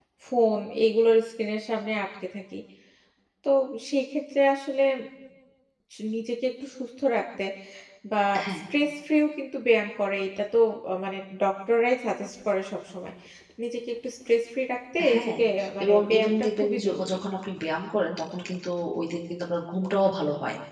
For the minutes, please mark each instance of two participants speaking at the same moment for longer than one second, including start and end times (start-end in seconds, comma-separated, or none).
15.8-17.2